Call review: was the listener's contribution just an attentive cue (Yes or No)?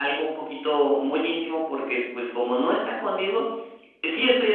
Yes